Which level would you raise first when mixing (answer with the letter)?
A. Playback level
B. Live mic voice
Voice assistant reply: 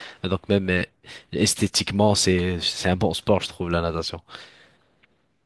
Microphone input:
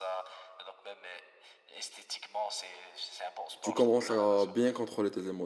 A